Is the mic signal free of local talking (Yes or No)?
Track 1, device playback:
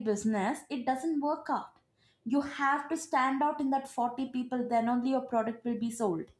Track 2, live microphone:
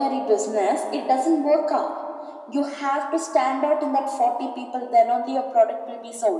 Yes